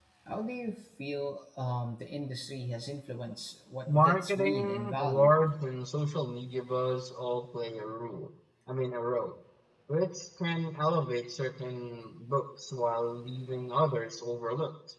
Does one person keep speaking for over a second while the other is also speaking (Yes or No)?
Yes